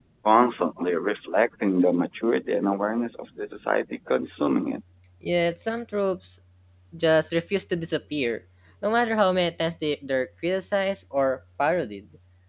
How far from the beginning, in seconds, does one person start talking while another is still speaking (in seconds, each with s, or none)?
none